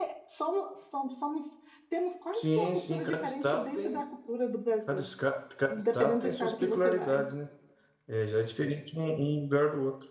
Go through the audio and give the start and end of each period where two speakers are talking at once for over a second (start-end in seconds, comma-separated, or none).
2.3-4.0, 5.7-7.3